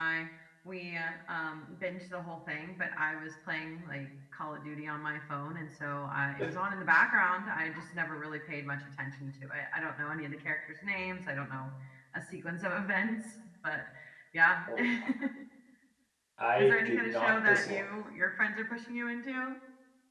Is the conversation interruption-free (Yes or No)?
No